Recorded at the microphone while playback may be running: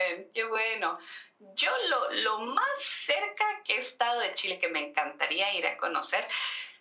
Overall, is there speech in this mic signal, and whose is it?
echo only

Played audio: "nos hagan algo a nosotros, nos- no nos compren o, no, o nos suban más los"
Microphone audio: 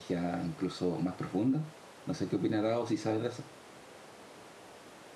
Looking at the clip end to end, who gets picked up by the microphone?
user only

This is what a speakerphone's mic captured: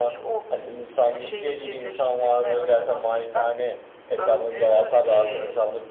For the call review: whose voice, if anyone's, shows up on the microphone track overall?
echo only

